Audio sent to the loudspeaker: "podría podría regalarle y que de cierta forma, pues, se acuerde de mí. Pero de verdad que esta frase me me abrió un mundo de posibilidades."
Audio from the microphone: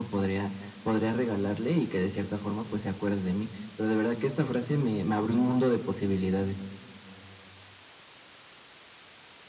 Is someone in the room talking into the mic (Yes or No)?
No